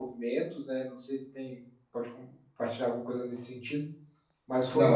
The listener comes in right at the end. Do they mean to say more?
No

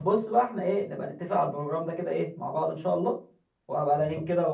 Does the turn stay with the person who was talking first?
Yes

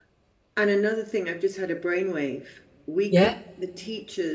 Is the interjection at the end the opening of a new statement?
No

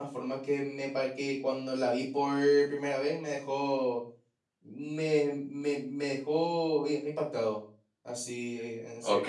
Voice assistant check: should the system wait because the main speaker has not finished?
No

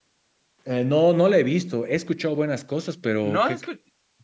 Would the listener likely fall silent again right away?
No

